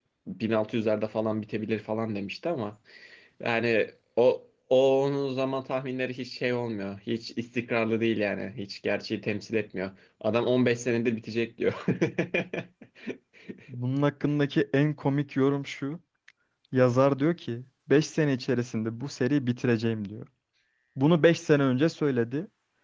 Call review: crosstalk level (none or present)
none